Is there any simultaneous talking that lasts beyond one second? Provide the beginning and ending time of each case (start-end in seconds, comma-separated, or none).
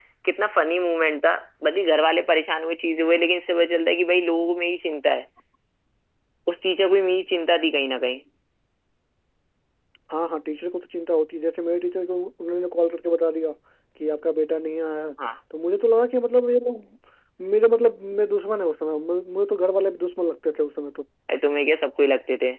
none